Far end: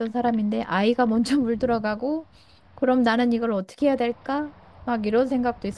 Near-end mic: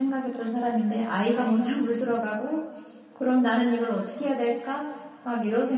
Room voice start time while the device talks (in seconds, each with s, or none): none